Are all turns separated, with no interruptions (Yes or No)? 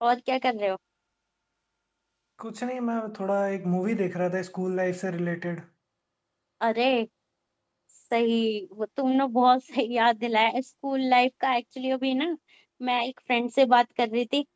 Yes